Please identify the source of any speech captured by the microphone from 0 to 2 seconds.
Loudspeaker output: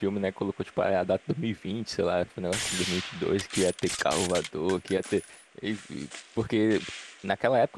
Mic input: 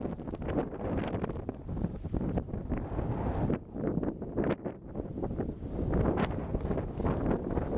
neither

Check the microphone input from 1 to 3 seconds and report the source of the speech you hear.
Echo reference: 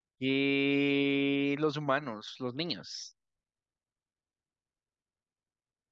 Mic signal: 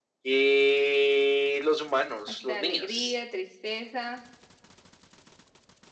both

